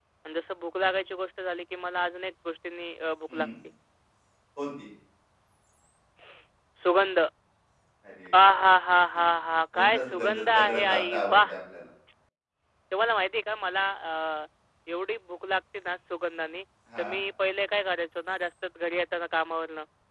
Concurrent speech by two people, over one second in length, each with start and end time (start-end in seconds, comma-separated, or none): 9.7-11.5